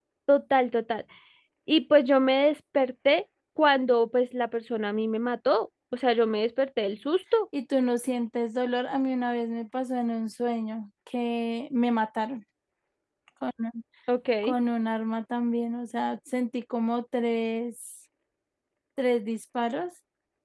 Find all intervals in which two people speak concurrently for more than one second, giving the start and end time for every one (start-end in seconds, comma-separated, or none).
none